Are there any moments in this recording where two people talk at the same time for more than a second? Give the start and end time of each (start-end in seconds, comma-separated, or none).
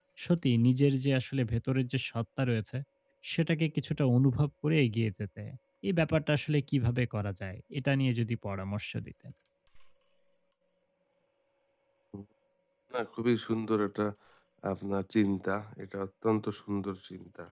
none